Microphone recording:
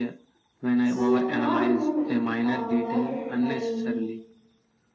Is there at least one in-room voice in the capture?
Yes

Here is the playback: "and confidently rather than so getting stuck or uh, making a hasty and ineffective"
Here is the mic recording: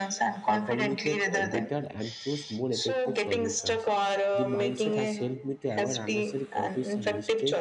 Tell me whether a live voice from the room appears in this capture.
Yes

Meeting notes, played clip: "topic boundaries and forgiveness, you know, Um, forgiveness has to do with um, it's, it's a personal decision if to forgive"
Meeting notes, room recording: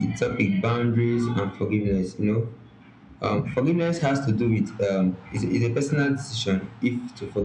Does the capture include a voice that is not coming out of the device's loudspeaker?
No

